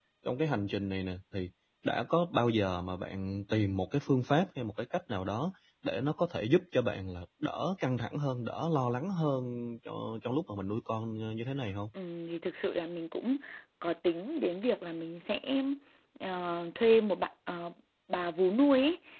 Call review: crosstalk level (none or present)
none